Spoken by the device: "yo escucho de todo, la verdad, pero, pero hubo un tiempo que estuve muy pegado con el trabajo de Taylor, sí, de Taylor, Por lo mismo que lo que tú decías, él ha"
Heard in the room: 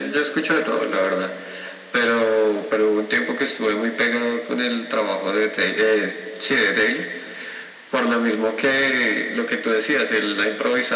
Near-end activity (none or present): none